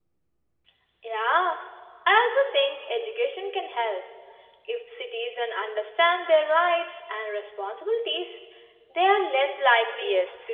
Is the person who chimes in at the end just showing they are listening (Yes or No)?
No